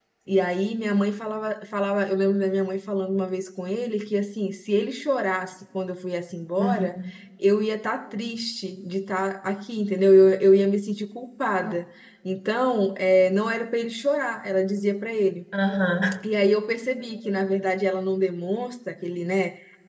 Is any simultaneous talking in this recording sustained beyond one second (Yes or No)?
No